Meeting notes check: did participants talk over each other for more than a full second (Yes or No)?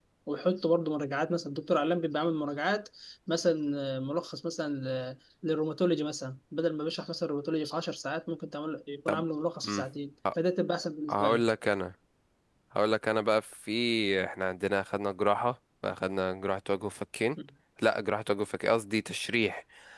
No